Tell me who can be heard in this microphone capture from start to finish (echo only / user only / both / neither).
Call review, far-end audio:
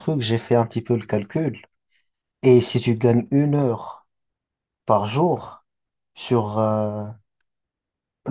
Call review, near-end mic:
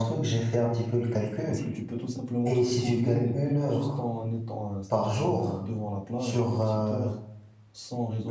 both